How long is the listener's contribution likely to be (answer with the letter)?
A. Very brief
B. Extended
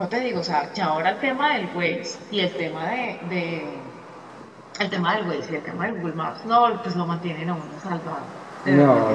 B